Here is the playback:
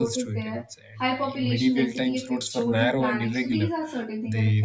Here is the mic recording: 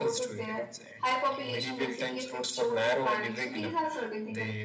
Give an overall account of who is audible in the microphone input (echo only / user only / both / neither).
echo only